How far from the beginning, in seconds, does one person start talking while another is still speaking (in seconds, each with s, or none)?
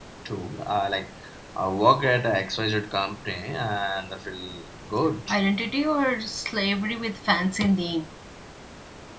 none